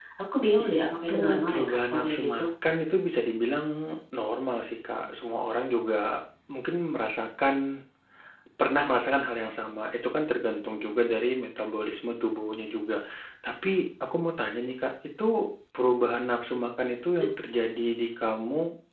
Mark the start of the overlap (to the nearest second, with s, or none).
1 s